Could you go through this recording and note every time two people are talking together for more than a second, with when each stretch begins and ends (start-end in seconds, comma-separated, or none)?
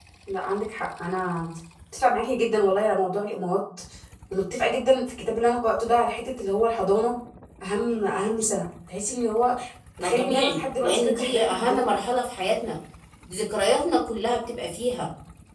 10.0-11.8